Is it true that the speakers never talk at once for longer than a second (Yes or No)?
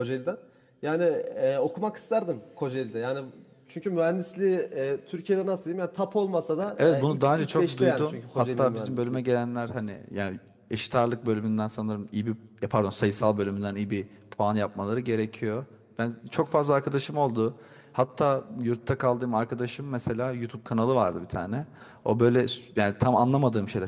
No